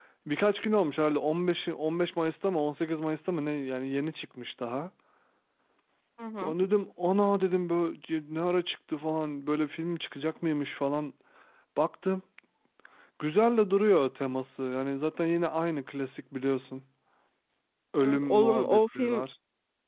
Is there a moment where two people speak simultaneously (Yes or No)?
Yes